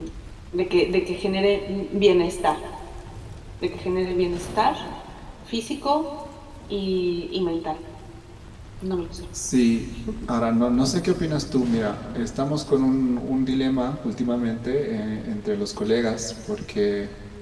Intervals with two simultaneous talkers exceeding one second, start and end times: none

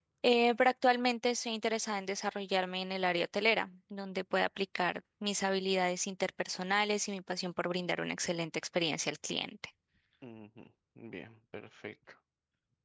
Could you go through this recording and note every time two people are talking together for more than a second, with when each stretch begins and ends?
none

